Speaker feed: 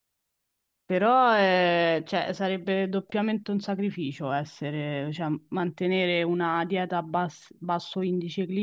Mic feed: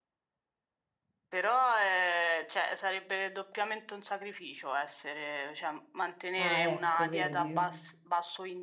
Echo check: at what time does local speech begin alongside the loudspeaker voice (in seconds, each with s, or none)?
6.3 s